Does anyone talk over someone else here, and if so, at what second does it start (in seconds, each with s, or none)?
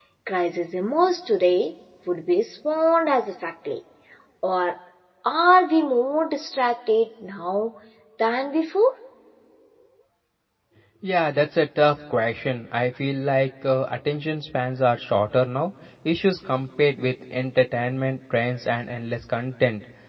none